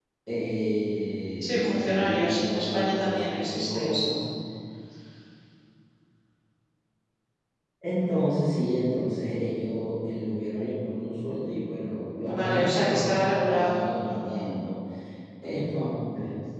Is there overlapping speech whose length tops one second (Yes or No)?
Yes